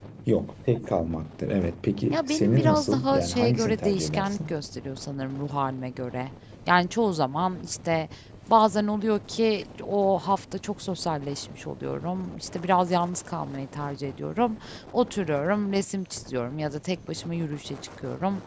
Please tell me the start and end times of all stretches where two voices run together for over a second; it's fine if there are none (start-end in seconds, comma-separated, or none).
2.1-4.5